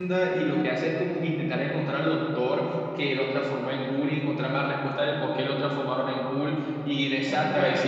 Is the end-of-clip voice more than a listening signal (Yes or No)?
No